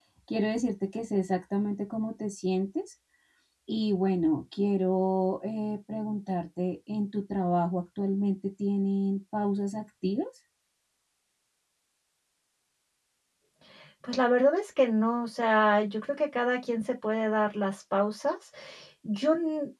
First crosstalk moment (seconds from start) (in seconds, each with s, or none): none